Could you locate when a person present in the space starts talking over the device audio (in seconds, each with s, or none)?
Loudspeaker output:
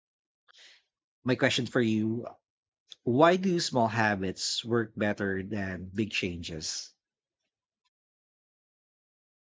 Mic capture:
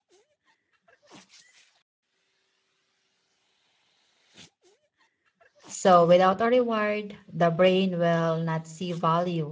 5.7 s